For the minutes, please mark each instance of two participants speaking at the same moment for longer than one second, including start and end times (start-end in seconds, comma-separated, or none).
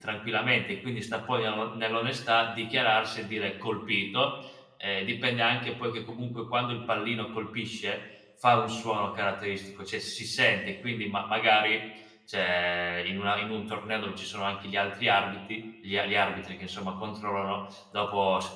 none